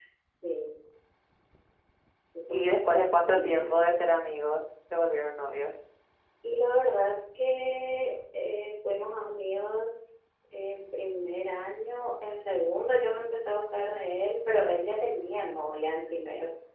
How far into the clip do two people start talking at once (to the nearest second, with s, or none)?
2 s